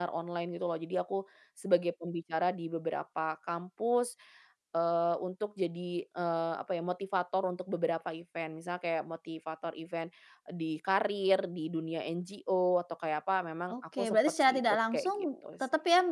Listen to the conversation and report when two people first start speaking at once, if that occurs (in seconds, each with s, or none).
13.7 s